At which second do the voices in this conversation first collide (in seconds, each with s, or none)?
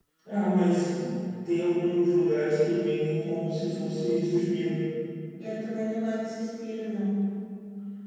none